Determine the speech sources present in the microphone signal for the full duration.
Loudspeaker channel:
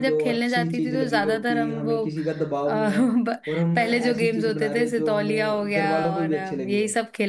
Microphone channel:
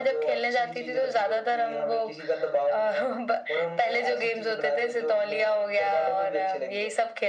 echo only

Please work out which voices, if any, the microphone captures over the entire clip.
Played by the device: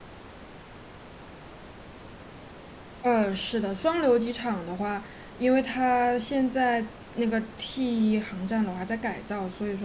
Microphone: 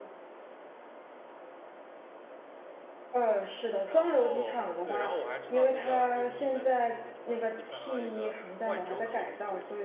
both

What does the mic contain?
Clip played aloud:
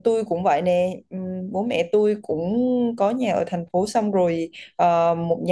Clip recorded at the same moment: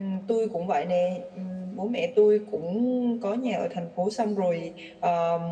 echo only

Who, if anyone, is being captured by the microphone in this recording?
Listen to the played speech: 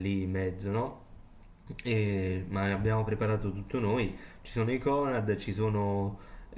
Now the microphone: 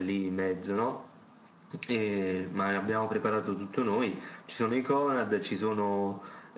echo only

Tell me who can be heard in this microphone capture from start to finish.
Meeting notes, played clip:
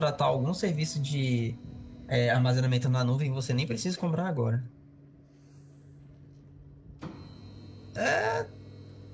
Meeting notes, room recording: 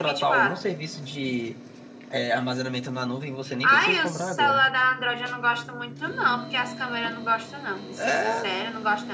both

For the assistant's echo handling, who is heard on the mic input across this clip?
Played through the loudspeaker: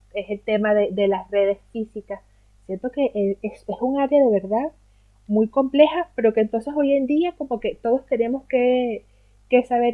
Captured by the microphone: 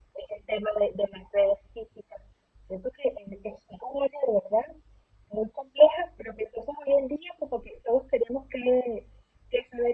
echo only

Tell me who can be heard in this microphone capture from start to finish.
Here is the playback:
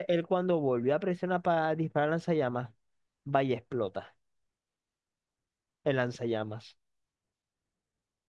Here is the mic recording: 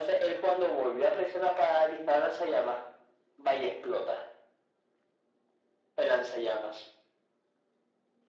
echo only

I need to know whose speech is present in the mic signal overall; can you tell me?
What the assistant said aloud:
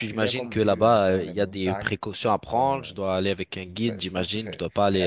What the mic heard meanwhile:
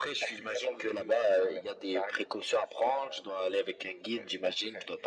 echo only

